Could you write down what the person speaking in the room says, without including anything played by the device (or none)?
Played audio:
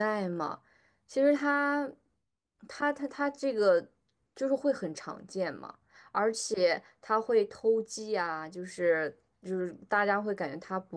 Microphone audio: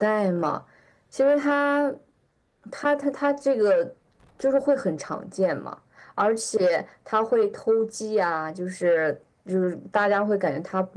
none